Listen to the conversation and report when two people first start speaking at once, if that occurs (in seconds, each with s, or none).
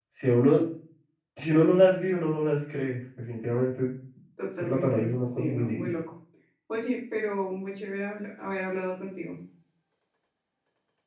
4.6 s